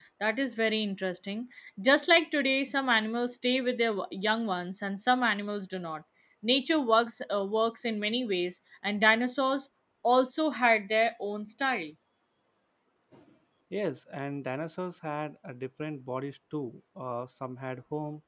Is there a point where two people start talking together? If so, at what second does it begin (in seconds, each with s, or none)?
none